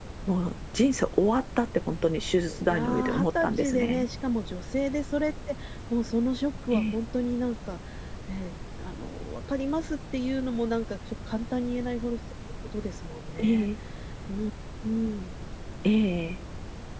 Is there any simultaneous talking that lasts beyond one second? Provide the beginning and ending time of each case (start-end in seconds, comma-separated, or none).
2.6-4.0